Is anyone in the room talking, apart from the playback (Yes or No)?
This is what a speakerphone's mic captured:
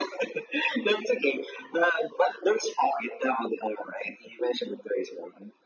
No